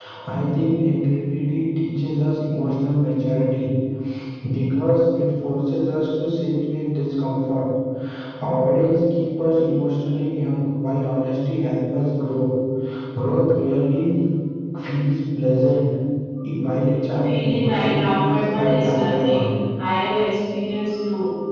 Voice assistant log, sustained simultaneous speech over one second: present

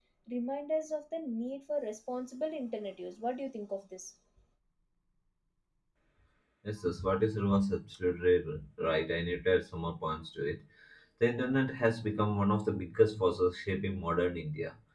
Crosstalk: none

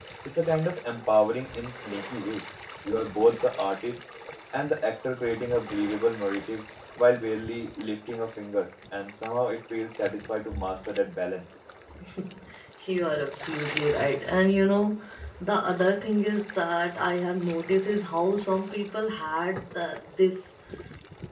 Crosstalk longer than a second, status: none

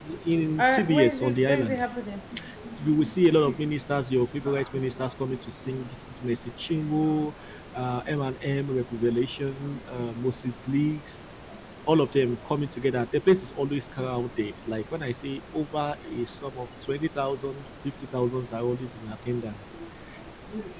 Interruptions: present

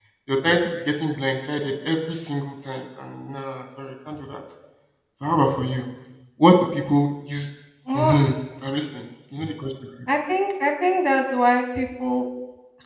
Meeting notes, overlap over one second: none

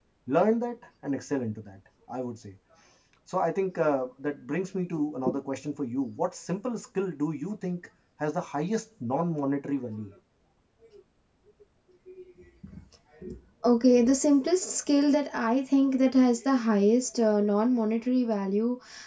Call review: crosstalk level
none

